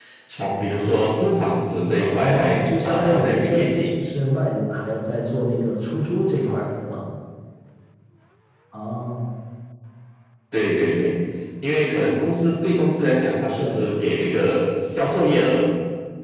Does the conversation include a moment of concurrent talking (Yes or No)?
Yes